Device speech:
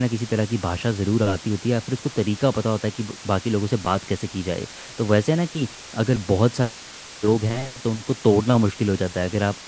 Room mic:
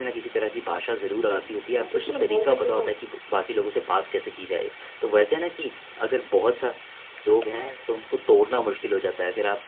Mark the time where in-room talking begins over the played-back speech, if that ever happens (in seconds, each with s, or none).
1.8 s